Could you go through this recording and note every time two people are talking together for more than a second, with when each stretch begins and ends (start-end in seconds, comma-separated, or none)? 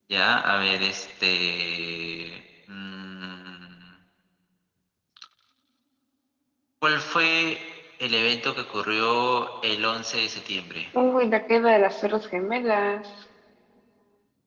none